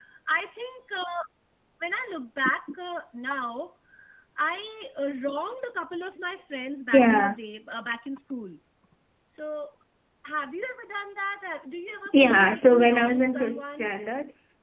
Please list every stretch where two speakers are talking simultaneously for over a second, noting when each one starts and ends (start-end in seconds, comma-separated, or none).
12.1-13.9